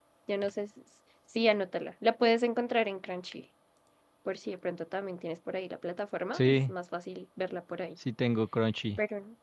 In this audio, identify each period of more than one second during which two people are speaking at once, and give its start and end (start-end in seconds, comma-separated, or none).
none